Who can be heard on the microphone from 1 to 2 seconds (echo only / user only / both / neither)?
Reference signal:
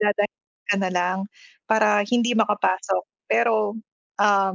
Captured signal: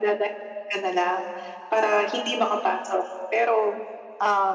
echo only